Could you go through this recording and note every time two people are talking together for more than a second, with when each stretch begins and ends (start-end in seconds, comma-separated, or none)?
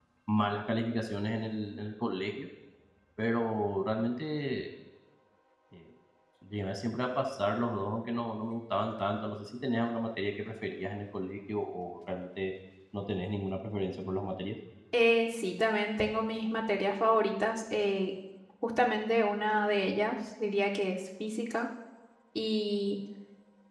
none